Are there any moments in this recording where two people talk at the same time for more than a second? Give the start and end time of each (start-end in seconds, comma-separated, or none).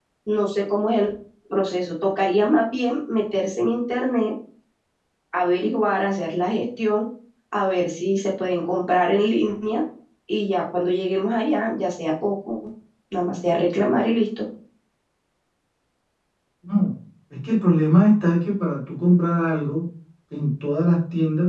none